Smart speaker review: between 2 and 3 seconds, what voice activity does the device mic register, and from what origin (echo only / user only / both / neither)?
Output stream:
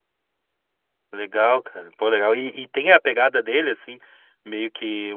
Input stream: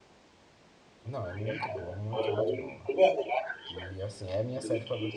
both